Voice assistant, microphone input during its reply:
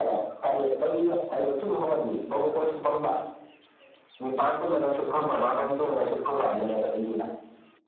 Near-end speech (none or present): present